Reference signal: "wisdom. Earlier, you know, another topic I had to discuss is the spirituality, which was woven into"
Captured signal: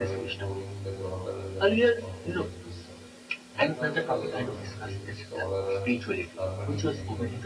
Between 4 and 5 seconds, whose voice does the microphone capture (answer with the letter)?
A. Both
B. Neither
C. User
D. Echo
A